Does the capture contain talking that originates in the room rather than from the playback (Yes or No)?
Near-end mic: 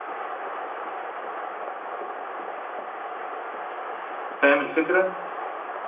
Yes